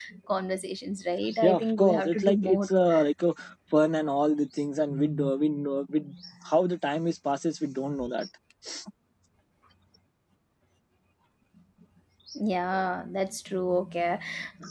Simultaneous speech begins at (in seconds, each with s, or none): 1.4 s